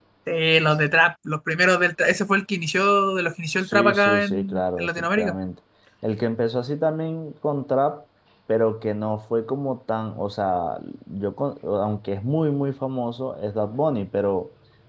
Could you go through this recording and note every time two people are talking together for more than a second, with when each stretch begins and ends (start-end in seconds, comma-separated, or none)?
3.6-5.3